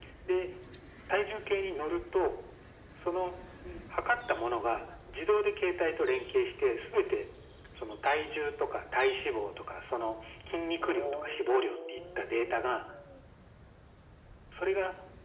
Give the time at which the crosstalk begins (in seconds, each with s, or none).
10.8 s